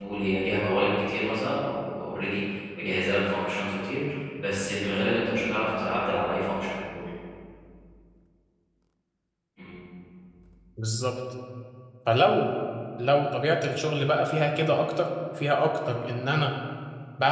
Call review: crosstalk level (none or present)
none